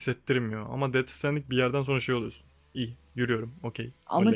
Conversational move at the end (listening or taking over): taking over